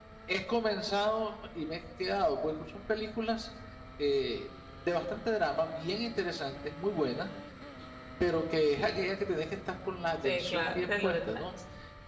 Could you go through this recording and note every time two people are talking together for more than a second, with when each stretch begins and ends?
10.2-11.4

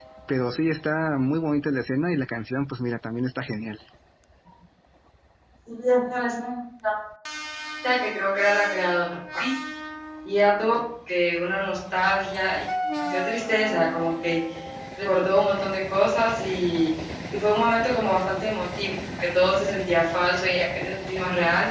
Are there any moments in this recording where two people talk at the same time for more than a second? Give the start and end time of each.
none

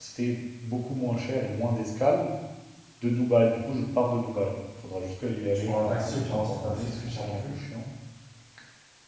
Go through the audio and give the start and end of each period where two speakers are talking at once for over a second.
5.7-7.5

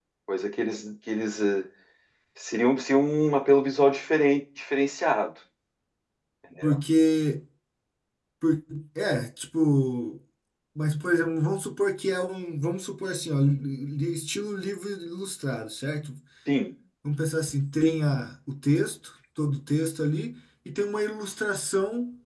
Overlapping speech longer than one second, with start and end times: none

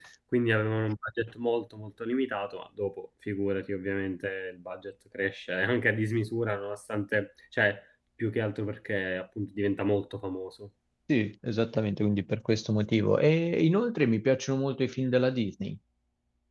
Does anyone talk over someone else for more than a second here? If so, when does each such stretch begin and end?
none

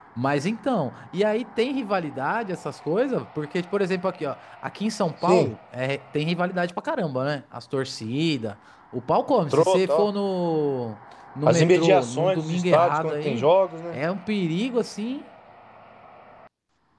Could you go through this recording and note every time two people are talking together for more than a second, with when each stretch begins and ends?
11.5-13.5

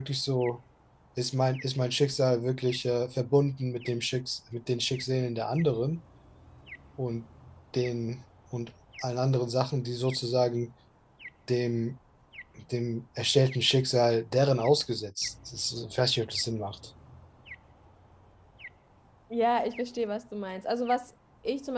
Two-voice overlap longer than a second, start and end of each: none

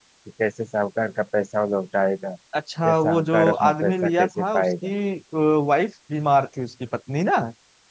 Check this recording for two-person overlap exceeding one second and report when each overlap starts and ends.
2.8-4.9

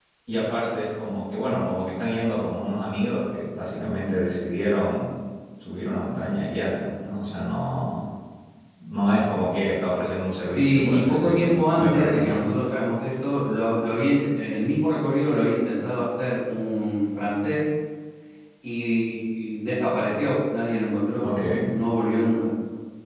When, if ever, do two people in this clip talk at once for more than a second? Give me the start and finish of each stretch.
10.5-12.4

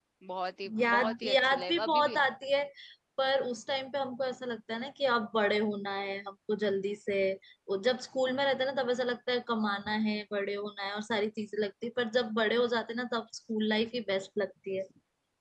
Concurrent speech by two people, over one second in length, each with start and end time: 0.8-2.1

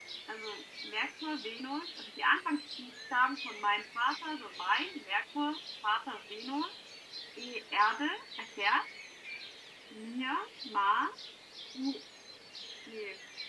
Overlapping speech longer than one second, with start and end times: none

